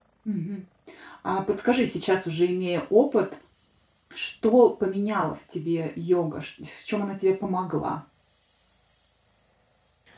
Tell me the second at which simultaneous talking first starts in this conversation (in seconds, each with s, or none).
none